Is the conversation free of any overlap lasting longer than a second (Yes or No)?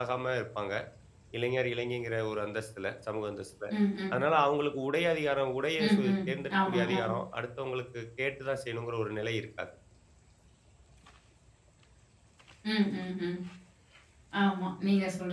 Yes